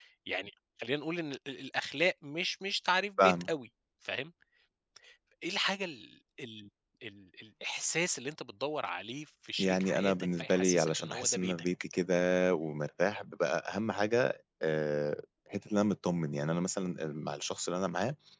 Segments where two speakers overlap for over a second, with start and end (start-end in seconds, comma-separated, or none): 9.6-11.7